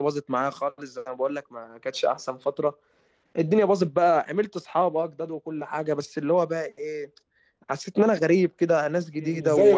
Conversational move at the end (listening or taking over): taking over